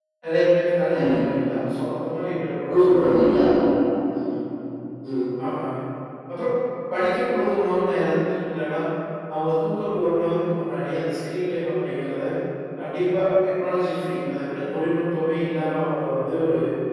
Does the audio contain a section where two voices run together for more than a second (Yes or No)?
No